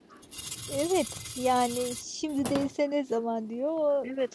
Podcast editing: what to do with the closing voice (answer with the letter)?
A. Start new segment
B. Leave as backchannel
A